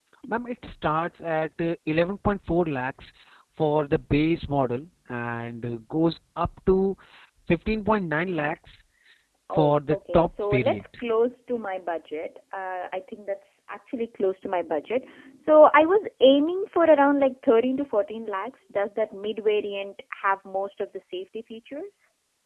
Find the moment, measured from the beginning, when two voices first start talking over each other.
9.6 s

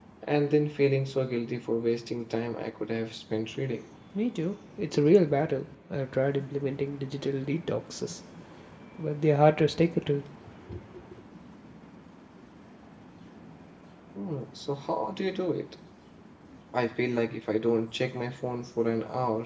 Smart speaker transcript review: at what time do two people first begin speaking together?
none

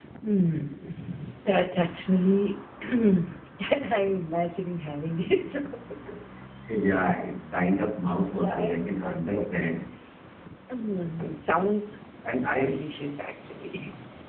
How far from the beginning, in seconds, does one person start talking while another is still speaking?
8.4 s

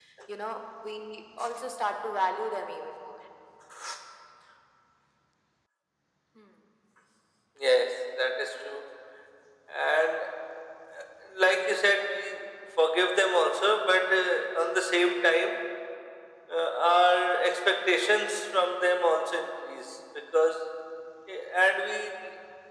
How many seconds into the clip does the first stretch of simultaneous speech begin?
none

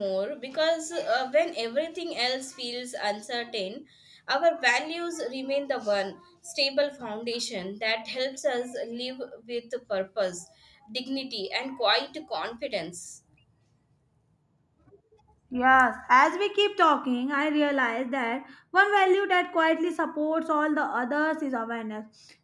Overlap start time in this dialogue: none

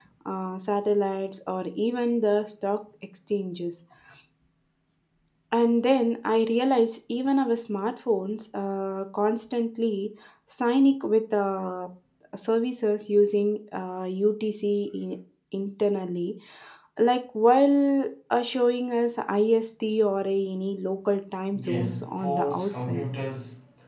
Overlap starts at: 21.5 s

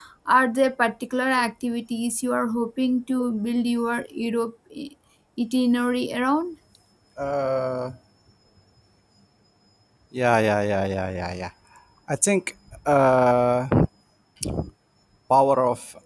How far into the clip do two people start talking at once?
none

